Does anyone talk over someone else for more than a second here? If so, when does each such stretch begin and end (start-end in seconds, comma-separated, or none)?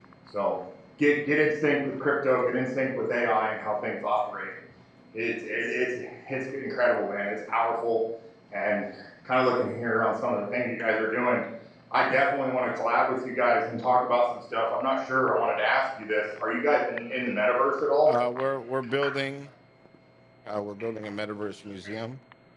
none